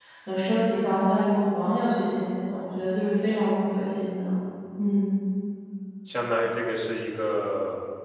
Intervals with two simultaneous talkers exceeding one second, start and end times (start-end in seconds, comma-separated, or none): none